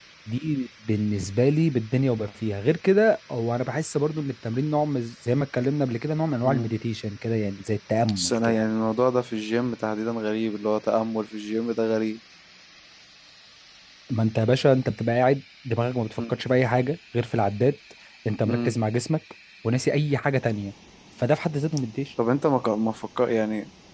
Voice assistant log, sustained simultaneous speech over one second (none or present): none